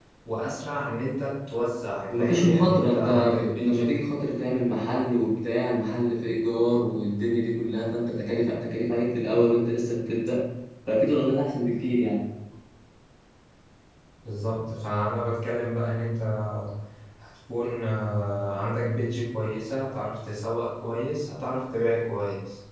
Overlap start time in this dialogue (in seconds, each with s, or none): 2.1 s